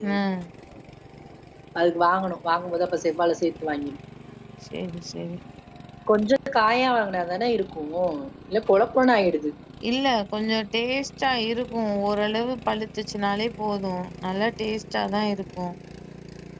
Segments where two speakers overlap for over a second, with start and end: none

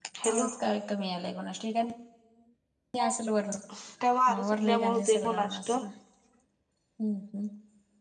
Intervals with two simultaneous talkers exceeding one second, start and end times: 4.3-5.8

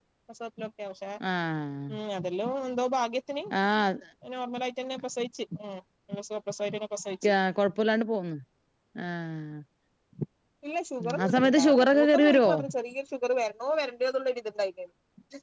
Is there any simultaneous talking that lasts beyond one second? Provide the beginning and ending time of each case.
11.2-12.5

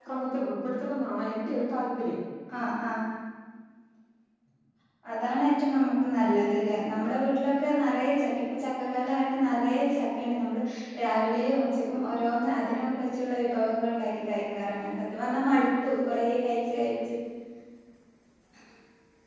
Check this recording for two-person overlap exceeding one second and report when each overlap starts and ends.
none

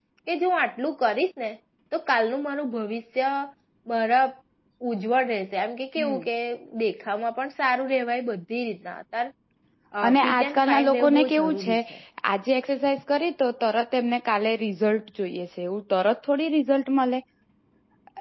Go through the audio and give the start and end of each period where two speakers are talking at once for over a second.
10.1-11.8

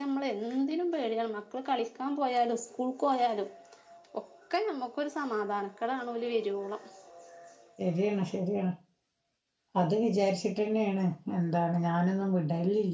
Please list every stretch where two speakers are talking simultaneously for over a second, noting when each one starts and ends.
none

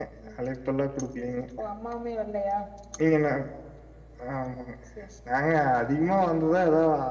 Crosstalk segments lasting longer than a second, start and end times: none

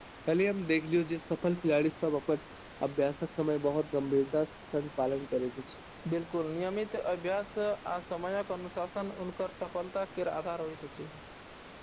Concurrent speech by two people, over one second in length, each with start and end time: none

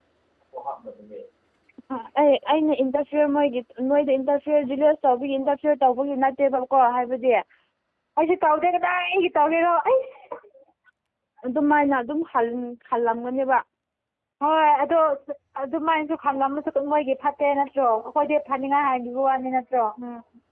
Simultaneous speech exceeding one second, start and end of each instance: none

